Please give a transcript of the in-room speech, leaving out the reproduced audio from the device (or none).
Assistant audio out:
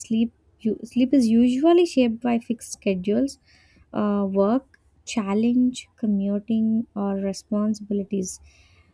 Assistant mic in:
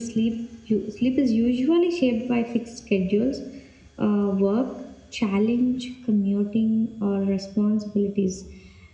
none